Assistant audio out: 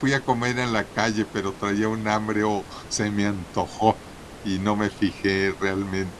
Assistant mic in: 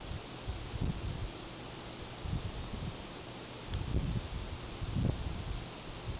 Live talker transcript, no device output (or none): none